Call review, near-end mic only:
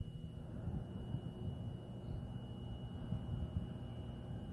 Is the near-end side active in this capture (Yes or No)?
No